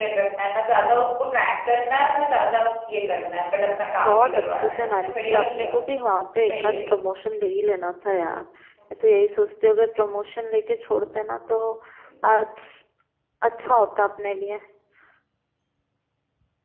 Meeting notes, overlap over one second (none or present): present